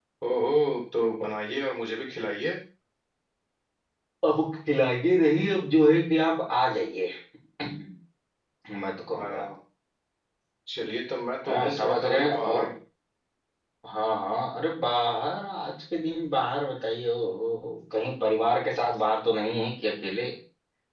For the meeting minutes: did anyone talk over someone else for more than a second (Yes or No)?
Yes